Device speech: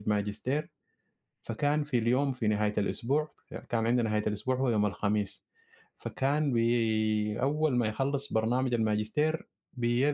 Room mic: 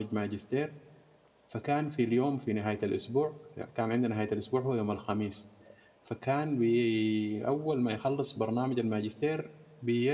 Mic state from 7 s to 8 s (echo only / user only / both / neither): echo only